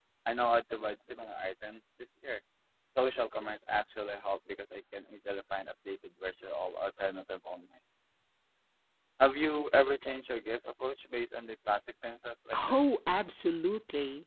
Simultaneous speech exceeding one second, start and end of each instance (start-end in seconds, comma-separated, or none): none